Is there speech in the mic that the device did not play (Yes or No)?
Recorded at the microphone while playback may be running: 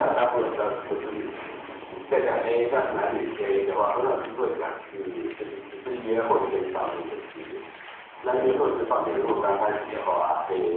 No